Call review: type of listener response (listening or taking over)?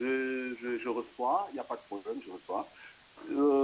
listening